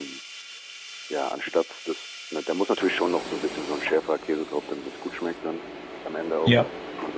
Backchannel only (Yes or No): Yes